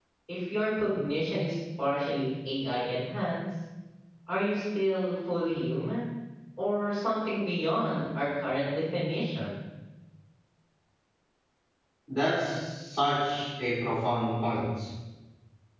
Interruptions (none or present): none